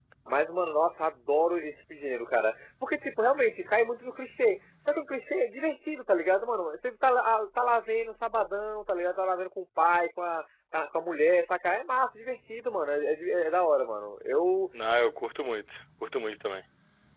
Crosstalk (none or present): none